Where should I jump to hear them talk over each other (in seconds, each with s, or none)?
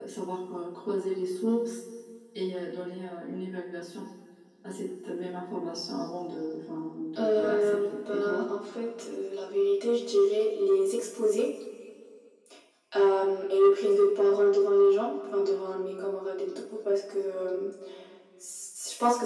7.2 s